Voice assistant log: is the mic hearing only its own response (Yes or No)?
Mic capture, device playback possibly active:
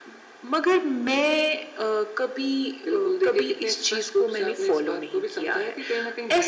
Yes